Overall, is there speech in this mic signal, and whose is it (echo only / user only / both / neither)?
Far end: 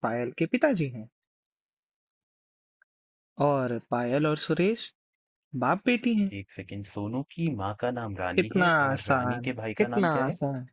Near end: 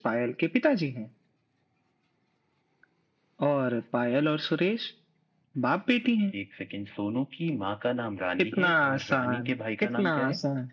echo only